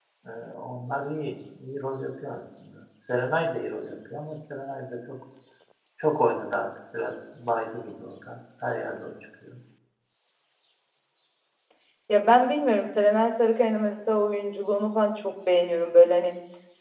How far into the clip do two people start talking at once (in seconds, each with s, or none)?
none